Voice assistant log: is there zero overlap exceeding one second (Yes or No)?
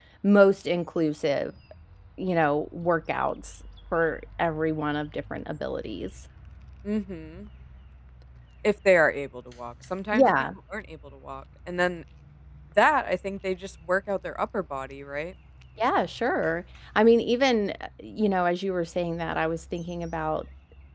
Yes